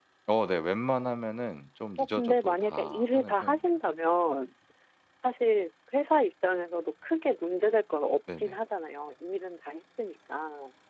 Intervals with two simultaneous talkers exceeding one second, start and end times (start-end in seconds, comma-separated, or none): 2.0-3.6